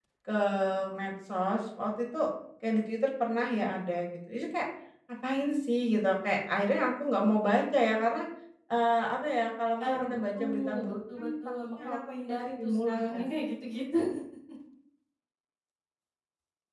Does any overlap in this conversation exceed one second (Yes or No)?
Yes